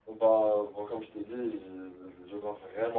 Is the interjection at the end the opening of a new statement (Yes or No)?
Yes